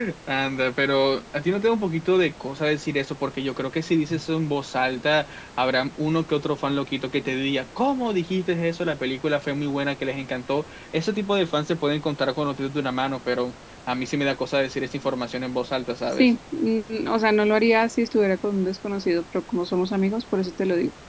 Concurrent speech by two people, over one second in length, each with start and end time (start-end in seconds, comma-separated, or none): none